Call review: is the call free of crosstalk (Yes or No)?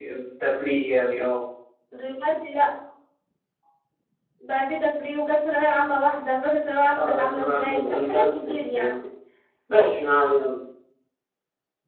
No